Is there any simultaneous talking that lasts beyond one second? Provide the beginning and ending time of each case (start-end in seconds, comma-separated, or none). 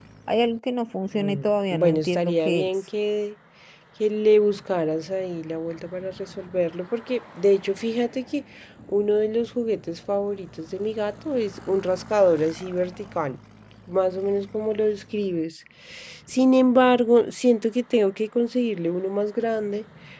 1.1-2.7